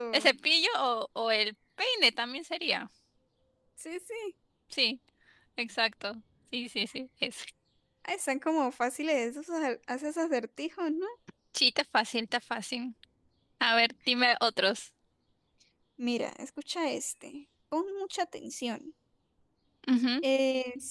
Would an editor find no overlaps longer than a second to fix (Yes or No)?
Yes